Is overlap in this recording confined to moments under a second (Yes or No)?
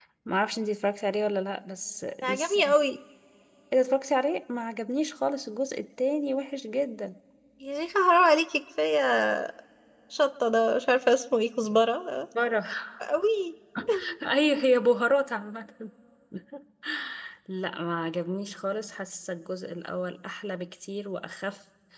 Yes